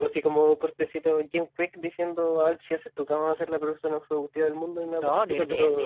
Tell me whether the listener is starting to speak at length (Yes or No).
Yes